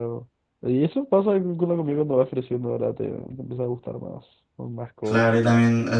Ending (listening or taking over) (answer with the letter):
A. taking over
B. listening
A